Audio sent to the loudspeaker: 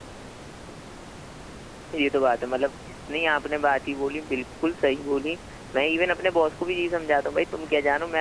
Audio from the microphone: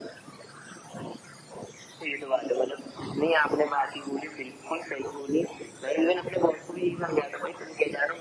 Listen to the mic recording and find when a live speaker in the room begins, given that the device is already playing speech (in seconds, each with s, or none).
none